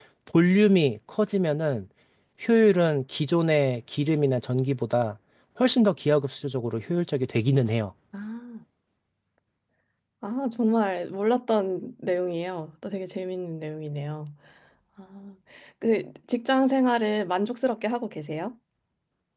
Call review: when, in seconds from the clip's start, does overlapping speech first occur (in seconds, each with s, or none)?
none